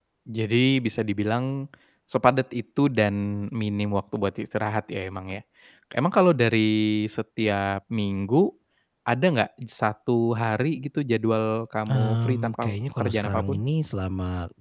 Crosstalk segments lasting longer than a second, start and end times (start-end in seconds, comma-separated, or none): 11.9-13.6